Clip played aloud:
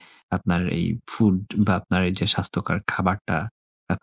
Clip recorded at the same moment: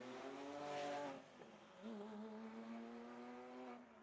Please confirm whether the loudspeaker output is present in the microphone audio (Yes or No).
No